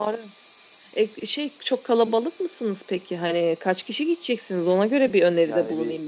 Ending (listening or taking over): taking over